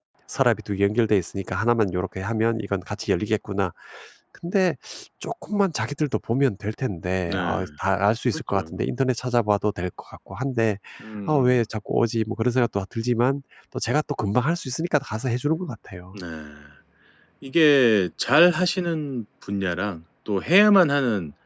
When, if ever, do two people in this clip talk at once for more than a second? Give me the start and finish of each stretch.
none

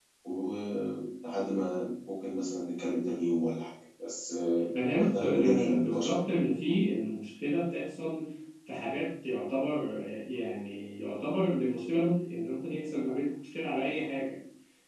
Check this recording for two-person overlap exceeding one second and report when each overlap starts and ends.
4.9-6.2

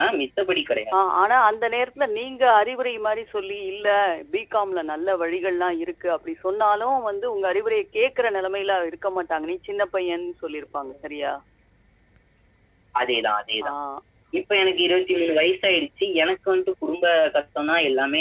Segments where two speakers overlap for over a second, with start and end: none

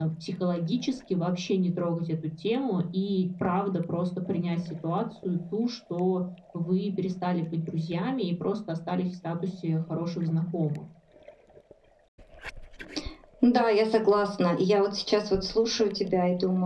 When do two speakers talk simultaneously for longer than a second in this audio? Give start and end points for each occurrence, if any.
none

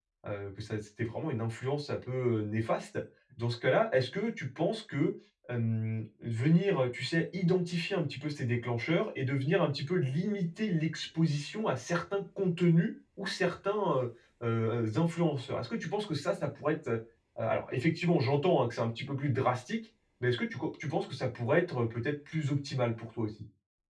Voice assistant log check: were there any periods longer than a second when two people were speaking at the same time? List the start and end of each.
none

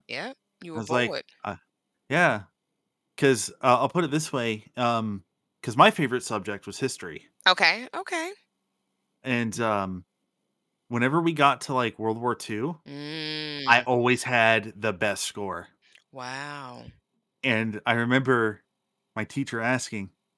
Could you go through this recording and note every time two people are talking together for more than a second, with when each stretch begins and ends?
none

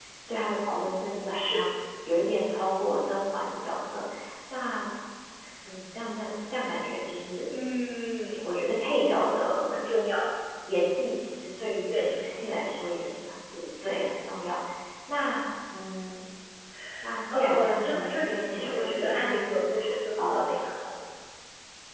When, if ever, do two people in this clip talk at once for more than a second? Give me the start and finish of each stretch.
17.3-19.6

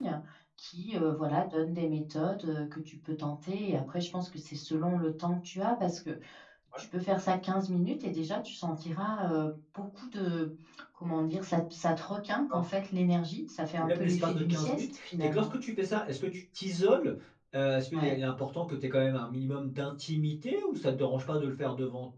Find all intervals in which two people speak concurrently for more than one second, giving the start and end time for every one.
13.8-15.5

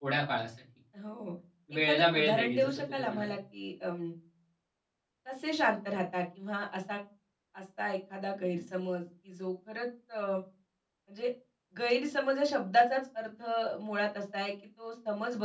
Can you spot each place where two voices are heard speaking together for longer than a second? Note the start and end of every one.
1.8-3.3

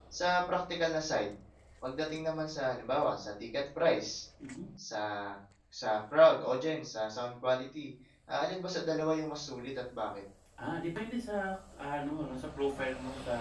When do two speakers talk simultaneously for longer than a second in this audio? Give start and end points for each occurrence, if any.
none

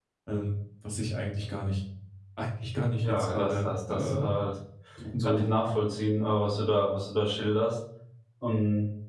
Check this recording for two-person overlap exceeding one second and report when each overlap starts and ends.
3.0-4.2

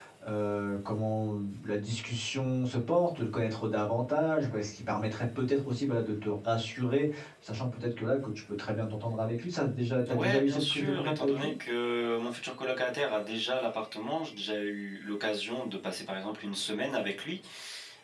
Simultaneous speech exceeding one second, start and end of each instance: 10.1-11.5

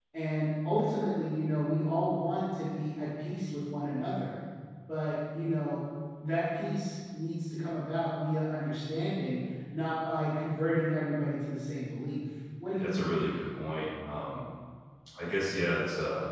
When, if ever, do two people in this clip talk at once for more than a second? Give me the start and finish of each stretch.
none

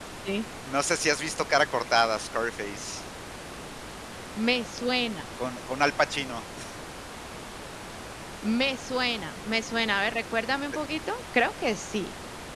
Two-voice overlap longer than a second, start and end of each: none

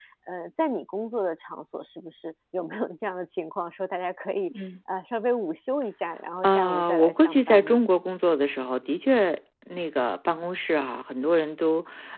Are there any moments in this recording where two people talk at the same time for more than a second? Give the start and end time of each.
6.4-7.8

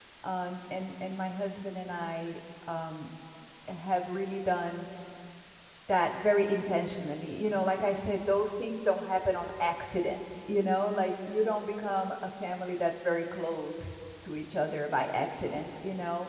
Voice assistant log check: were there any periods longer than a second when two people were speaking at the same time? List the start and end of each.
none

